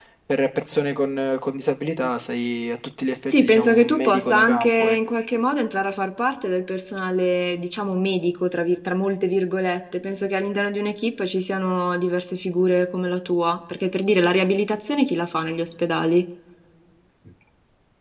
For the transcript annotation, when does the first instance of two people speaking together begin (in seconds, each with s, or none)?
3.3 s